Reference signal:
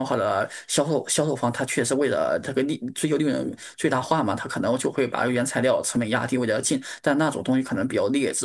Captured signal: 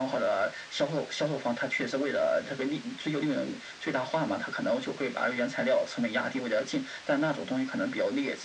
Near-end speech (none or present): none